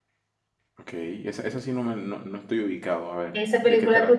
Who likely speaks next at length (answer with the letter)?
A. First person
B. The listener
B